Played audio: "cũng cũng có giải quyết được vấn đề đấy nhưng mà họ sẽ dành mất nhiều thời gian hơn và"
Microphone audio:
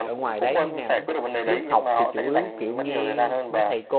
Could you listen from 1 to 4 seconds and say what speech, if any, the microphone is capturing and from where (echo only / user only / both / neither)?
both